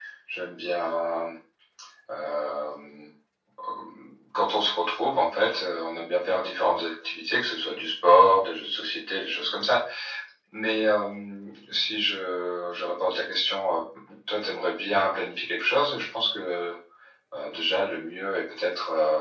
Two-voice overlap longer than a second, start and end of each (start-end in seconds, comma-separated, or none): none